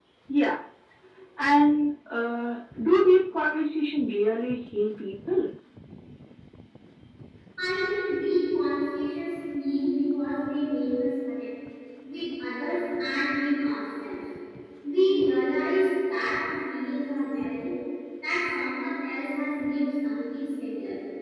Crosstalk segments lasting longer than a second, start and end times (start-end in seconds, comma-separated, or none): none